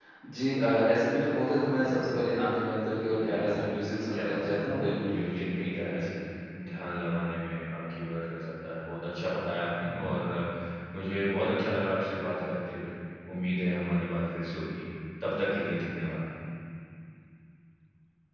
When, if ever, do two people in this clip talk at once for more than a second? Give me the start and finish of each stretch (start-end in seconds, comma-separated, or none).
4.1-6.0